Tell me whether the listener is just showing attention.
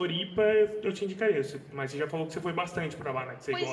No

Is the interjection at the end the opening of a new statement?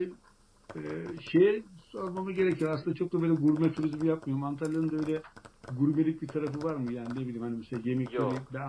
No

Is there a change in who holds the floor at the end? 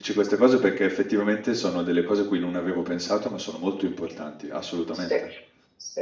Yes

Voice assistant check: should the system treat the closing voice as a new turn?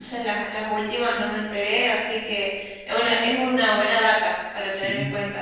Yes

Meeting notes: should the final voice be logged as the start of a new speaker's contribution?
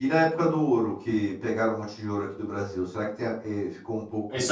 Yes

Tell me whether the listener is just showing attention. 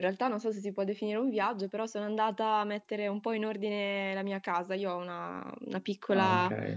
Yes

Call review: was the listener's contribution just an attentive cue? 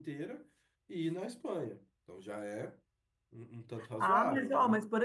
No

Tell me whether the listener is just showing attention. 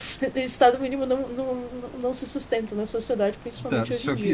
No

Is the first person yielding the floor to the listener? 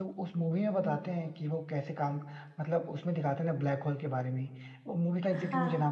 No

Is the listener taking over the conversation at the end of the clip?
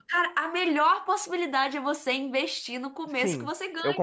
Yes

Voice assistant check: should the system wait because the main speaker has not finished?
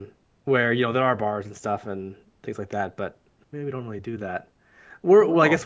Yes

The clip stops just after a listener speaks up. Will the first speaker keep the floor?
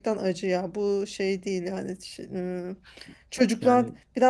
Yes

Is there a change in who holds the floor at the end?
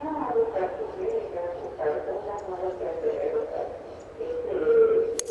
No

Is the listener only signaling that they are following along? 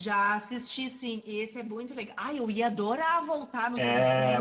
No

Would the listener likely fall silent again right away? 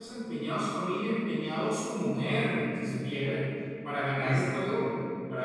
Yes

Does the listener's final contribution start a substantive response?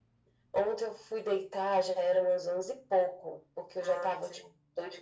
No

